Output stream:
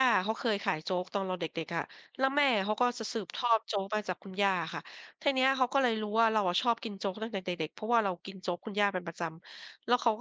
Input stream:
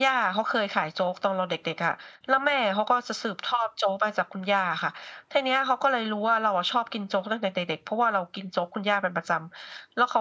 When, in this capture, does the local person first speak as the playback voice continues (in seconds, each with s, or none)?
none